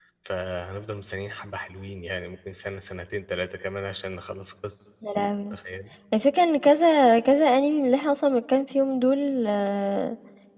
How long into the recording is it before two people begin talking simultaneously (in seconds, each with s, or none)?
none